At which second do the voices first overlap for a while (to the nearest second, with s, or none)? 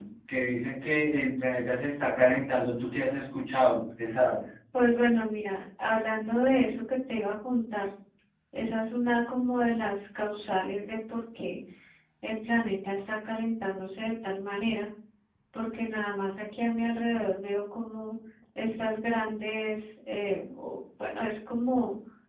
none